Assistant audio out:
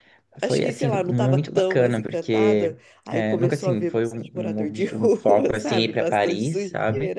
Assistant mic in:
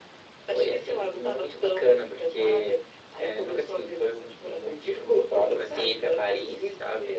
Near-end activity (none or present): none